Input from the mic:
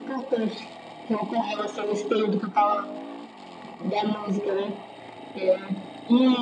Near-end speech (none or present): none